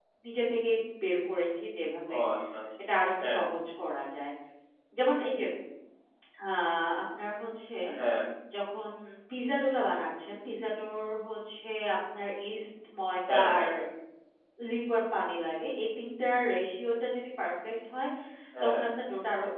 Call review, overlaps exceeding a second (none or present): none